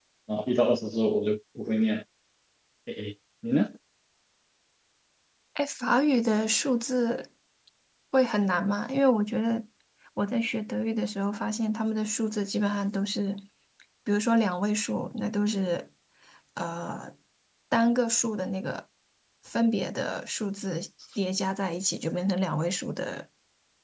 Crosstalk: none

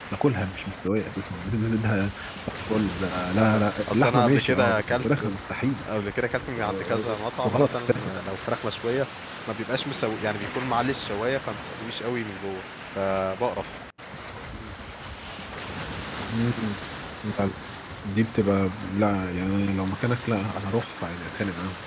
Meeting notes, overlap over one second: present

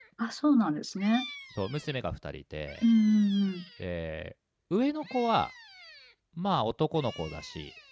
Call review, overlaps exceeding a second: none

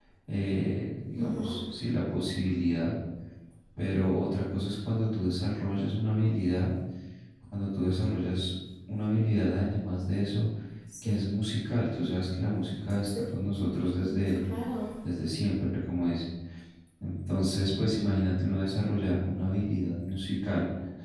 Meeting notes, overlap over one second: none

